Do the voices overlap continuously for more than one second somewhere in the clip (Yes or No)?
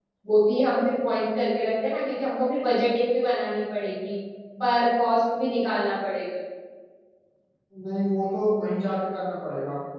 No